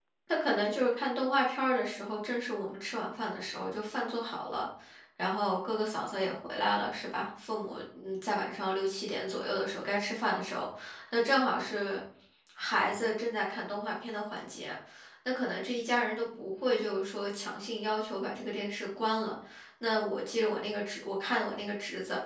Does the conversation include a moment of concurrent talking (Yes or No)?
No